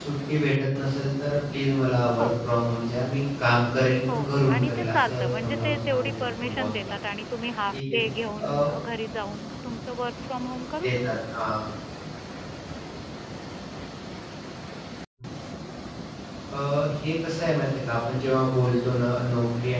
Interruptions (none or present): present